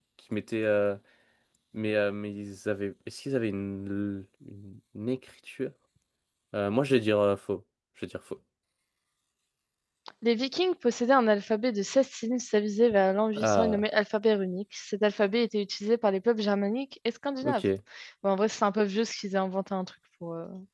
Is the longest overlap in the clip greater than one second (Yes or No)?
No